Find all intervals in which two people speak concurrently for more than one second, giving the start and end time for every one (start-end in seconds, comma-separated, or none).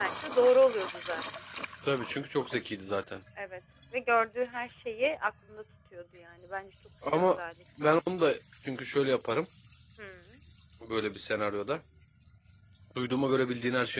none